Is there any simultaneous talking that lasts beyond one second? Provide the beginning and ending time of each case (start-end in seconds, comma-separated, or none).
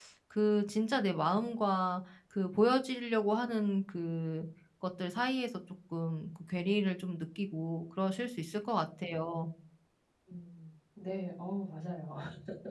none